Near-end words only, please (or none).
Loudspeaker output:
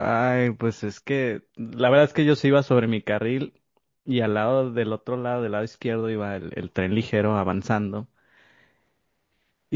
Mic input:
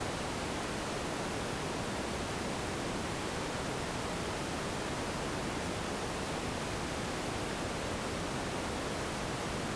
none